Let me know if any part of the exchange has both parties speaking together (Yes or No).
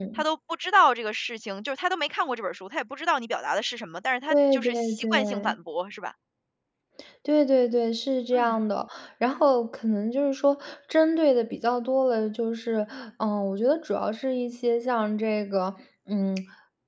Yes